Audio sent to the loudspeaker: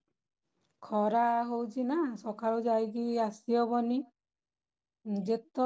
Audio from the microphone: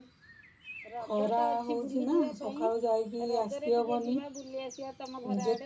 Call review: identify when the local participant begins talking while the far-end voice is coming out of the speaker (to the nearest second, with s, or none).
1 s